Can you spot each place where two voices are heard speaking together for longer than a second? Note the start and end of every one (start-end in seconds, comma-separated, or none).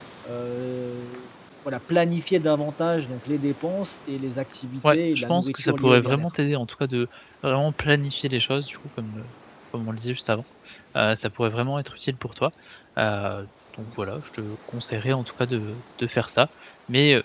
4.9-6.3